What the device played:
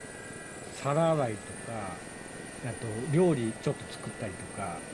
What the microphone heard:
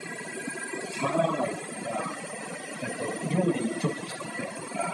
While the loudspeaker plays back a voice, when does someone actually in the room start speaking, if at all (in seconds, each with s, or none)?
none